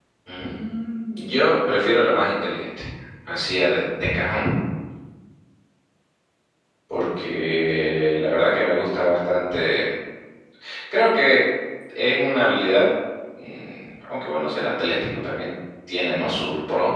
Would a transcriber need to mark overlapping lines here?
No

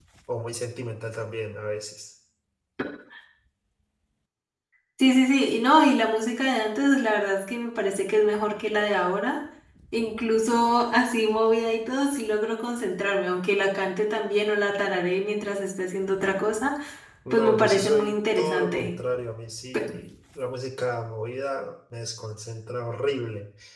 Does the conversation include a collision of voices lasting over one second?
Yes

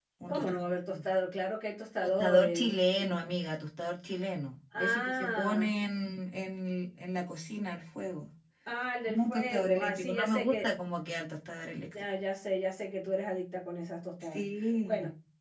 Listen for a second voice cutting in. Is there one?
Yes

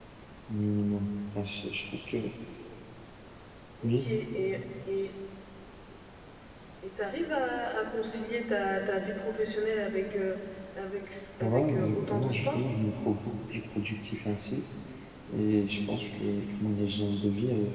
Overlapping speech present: Yes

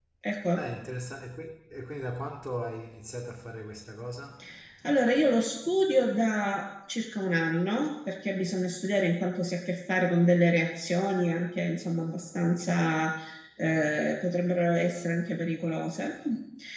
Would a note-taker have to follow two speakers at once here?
No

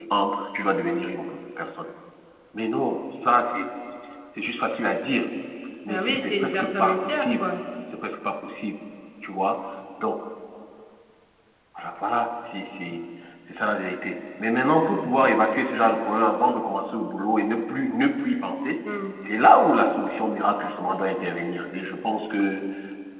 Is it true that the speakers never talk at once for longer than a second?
No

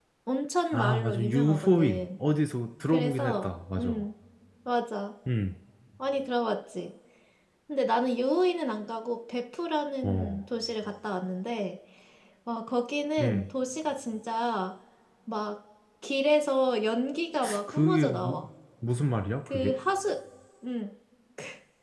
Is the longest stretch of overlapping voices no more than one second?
No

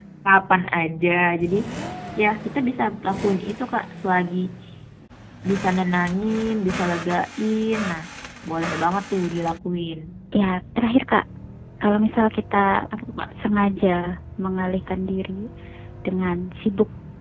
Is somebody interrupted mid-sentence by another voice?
No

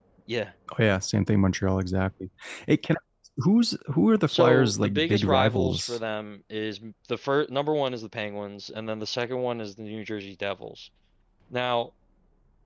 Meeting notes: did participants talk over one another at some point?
Yes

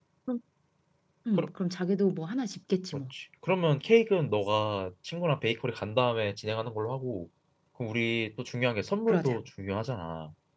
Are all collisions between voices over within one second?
Yes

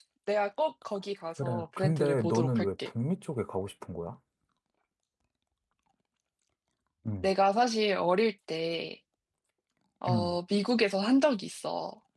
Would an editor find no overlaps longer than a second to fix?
No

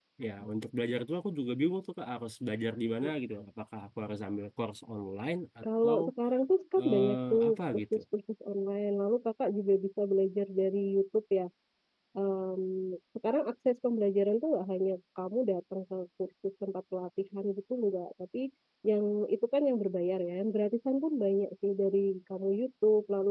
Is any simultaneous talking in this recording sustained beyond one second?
Yes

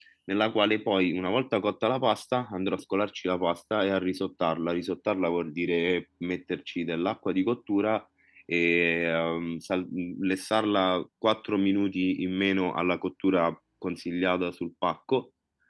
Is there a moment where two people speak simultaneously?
No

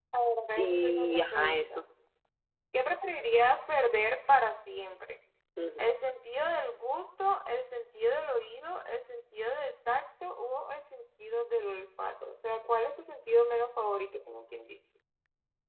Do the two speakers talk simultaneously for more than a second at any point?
Yes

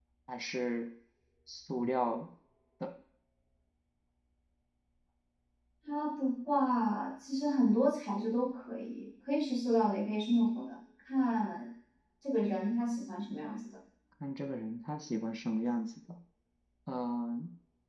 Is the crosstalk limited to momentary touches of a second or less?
Yes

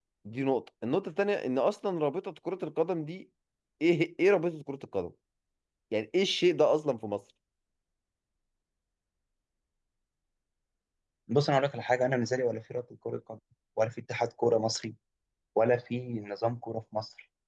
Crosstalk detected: No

